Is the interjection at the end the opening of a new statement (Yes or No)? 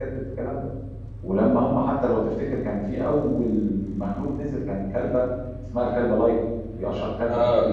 No